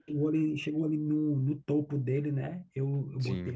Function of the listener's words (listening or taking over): taking over